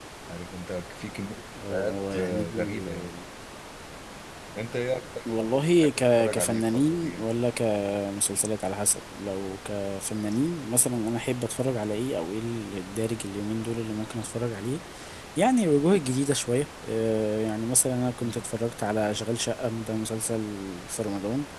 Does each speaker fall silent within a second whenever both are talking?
No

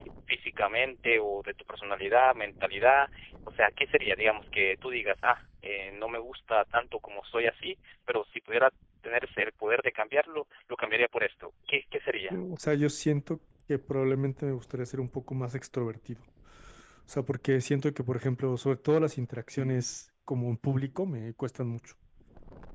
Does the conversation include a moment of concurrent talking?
No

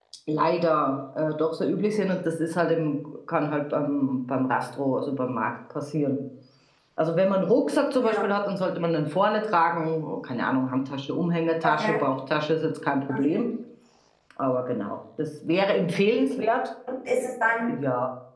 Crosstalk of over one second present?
No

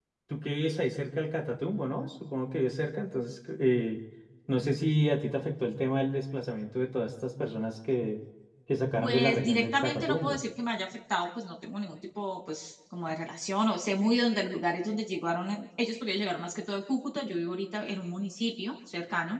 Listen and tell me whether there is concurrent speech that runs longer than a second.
Yes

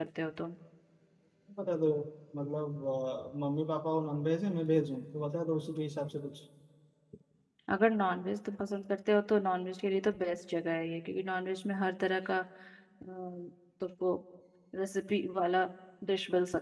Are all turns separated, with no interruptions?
Yes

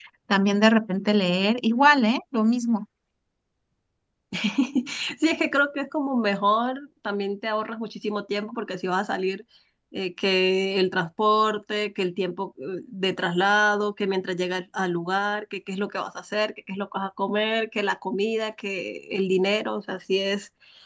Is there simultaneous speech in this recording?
No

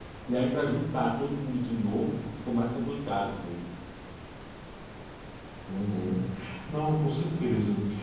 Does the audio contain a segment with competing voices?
No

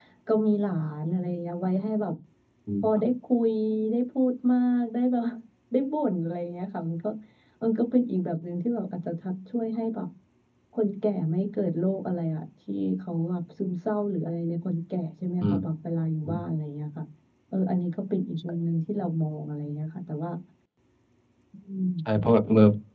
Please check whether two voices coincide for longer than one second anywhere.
No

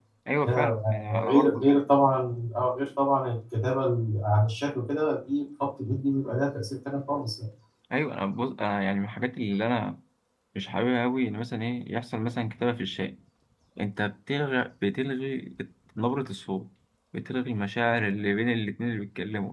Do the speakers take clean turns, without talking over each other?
No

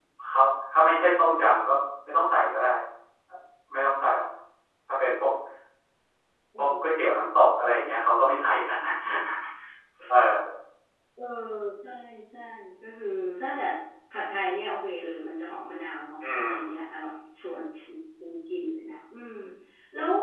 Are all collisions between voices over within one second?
Yes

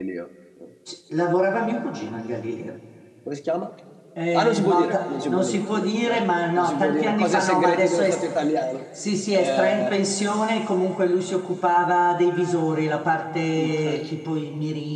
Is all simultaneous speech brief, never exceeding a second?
No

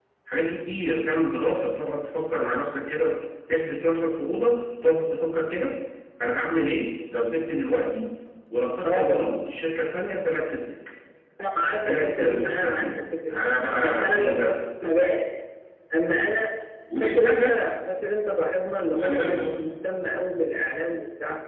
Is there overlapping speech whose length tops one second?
Yes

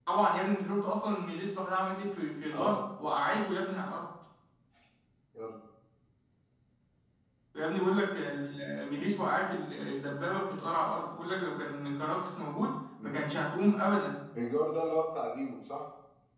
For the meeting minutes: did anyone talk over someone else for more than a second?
No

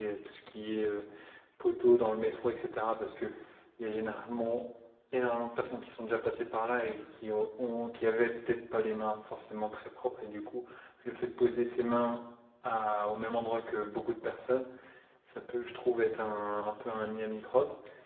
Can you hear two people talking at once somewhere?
No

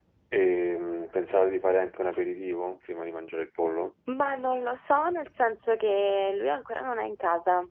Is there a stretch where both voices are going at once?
No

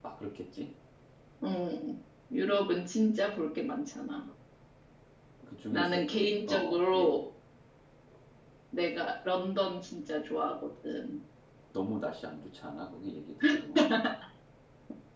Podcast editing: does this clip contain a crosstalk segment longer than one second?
Yes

